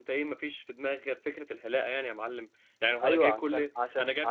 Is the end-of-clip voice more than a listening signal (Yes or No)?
Yes